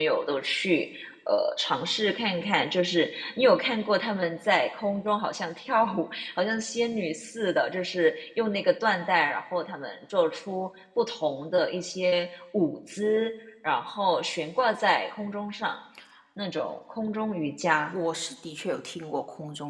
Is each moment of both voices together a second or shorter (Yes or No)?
Yes